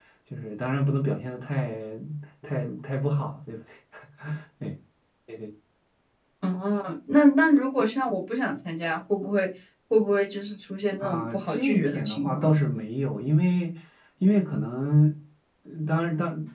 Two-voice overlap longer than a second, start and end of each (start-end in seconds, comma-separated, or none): 11.0-12.5